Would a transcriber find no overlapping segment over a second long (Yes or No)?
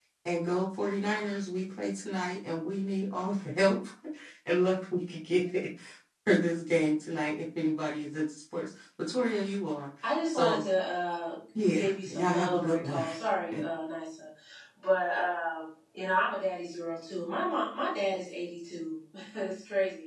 No